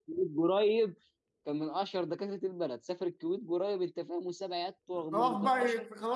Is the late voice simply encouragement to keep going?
No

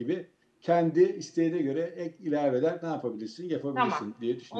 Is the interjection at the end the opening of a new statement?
Yes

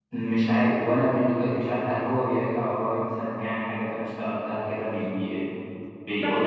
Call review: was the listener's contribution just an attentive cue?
No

